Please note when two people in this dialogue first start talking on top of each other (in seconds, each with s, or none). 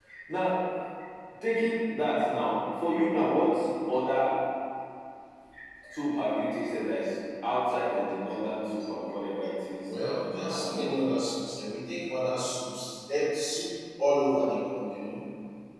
9.8 s